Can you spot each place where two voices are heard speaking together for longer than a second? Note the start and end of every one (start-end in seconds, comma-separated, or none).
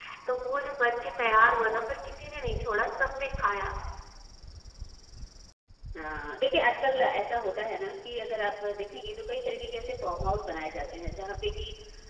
none